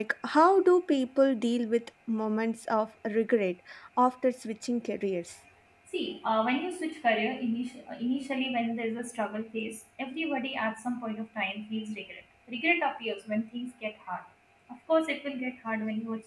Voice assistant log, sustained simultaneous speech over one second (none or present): none